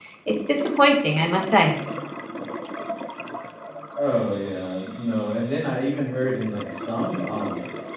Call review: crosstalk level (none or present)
none